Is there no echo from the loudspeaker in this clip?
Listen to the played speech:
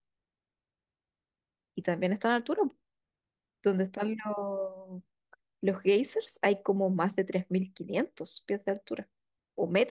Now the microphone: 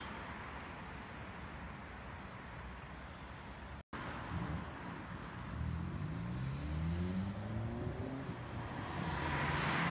Yes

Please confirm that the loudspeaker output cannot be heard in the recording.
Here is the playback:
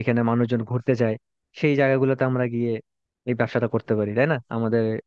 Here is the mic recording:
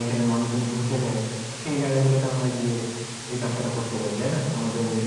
No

